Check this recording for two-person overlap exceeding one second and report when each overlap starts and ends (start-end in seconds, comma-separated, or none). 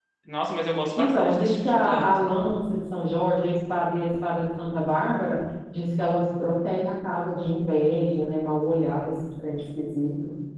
1.0-2.2